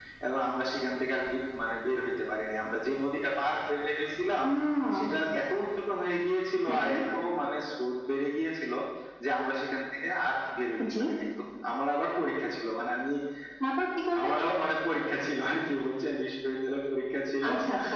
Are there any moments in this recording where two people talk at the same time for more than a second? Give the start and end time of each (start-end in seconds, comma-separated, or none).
none